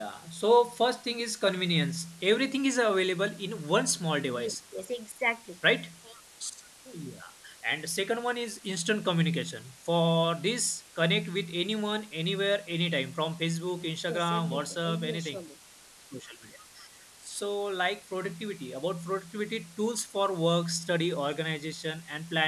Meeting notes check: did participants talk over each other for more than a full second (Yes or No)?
Yes